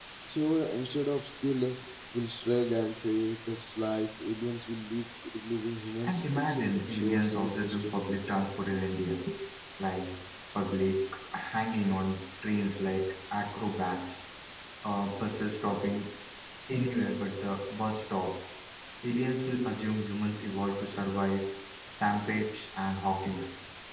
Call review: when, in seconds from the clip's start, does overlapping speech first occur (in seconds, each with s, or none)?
6.0 s